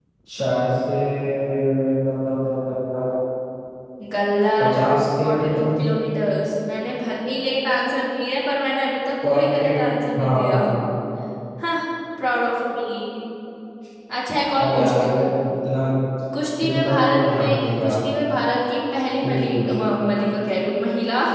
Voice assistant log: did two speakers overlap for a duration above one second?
Yes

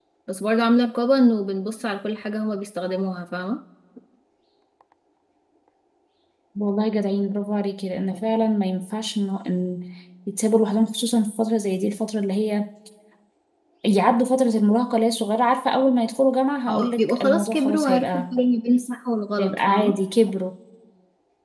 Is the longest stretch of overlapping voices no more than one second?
No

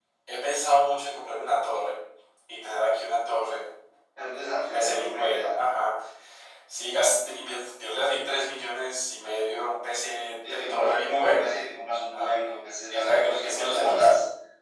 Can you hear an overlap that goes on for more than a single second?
Yes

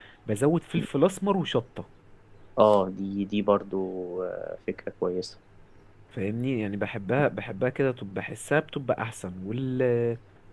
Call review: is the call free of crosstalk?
Yes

